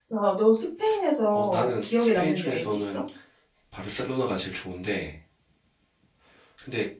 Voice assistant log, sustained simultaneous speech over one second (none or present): present